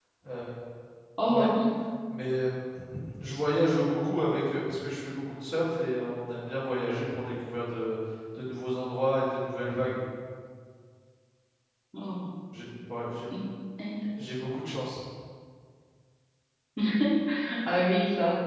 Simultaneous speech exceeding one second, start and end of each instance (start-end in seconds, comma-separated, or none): none